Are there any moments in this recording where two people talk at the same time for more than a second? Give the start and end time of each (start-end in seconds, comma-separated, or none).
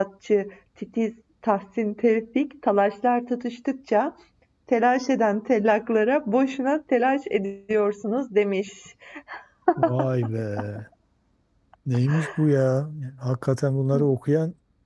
none